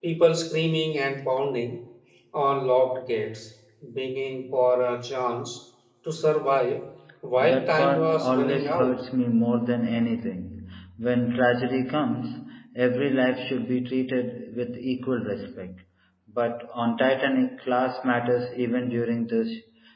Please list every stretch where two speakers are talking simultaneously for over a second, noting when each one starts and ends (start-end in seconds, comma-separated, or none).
7.4-9.0